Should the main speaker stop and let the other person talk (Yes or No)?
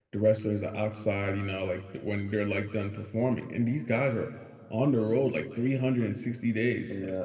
No